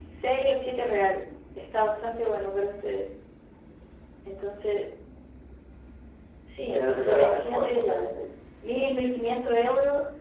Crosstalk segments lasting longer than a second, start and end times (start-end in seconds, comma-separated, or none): 6.7-8.1